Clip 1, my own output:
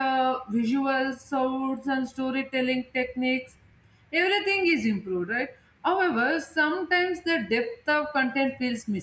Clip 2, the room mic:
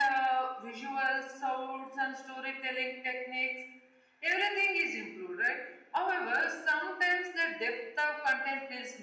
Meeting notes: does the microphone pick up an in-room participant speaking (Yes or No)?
No